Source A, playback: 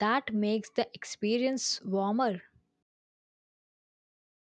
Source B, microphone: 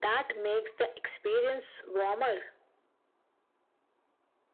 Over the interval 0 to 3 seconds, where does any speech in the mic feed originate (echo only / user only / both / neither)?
echo only